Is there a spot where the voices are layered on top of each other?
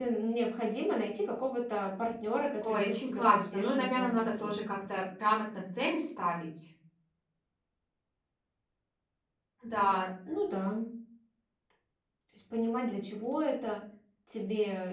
Yes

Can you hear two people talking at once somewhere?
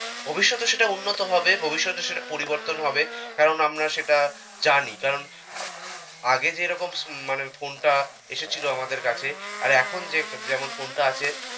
No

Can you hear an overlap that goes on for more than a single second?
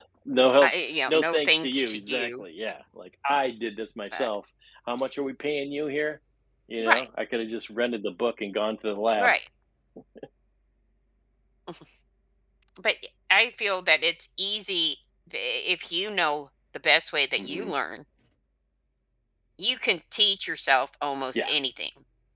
Yes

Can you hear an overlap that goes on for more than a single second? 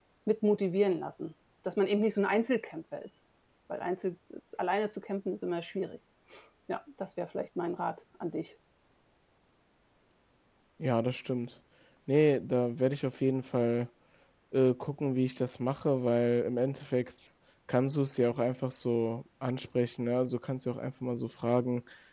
No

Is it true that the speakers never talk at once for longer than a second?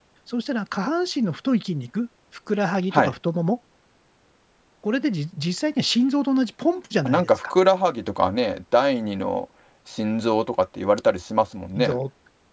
Yes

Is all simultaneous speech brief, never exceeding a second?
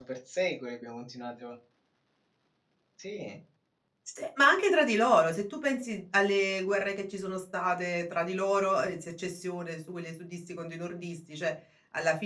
Yes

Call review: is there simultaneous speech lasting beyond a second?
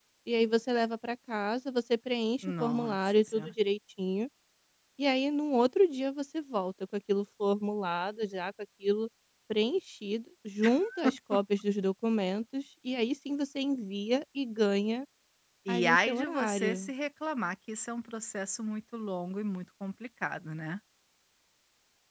Yes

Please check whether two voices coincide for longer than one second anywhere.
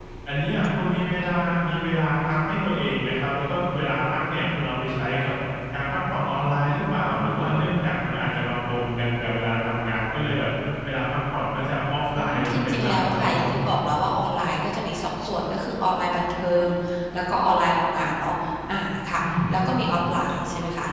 Yes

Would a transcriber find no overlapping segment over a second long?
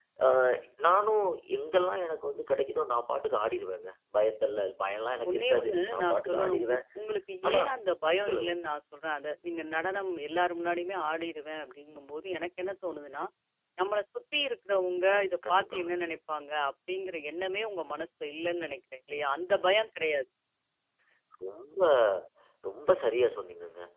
No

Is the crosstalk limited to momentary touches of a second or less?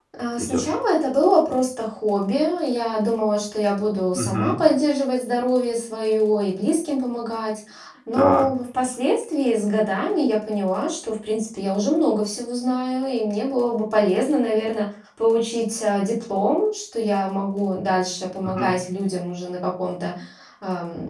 Yes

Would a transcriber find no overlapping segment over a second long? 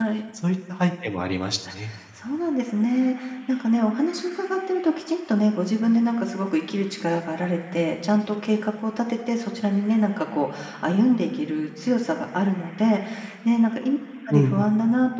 Yes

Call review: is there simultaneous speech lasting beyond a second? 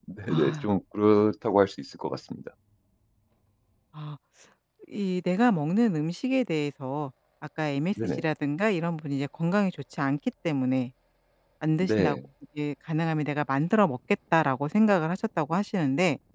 No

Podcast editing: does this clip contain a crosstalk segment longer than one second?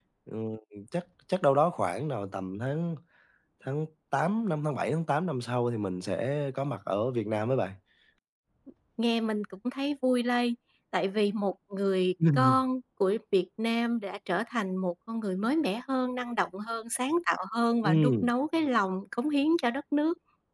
No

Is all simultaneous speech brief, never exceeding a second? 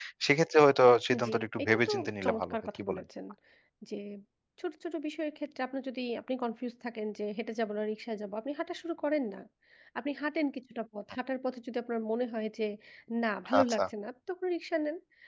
No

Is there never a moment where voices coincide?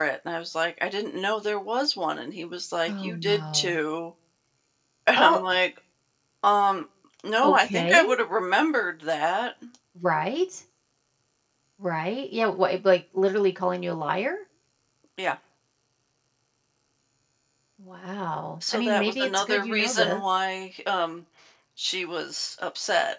No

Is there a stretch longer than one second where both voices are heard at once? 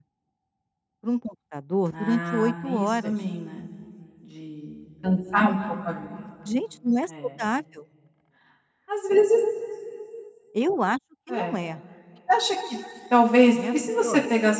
Yes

